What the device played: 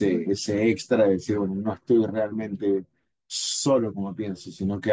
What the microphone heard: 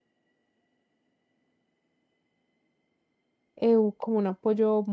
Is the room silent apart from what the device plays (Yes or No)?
No